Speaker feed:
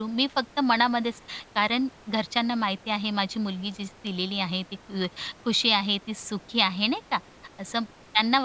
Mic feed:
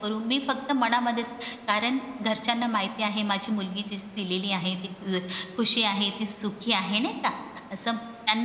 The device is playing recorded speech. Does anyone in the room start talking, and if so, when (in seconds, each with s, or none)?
none